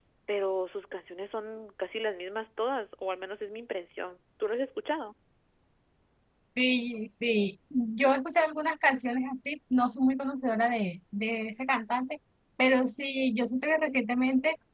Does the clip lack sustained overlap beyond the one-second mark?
Yes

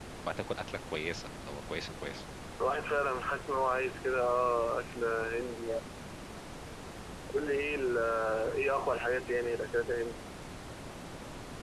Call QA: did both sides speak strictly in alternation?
Yes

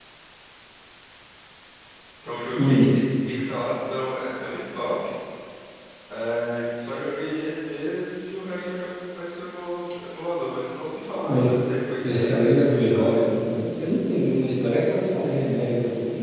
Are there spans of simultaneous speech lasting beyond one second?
Yes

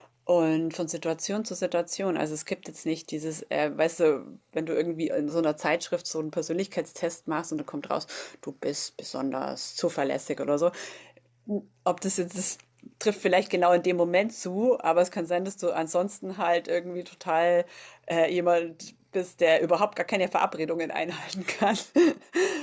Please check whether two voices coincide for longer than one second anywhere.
No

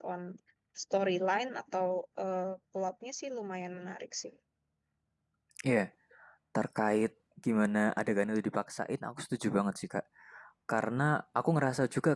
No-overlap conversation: Yes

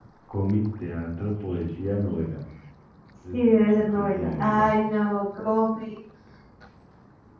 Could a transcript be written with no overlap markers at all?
No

